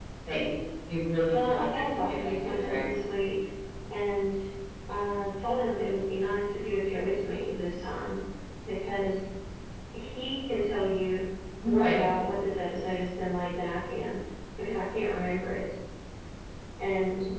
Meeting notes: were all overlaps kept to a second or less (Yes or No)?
No